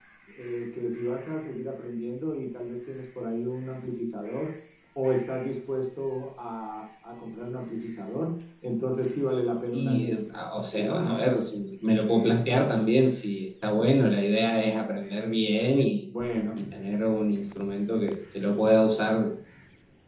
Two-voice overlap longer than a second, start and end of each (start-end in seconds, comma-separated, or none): 9.7-11.2